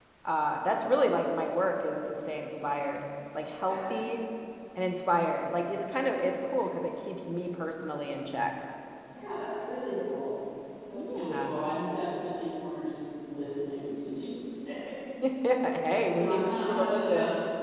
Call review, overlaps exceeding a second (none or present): present